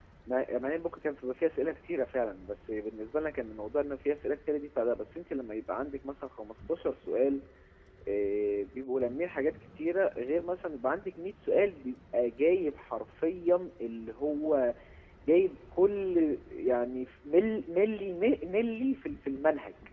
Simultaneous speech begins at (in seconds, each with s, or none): none